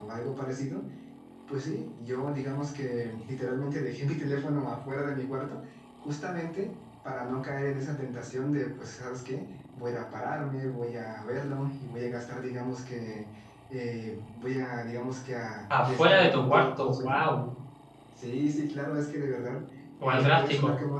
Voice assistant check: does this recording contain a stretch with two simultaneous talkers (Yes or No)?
Yes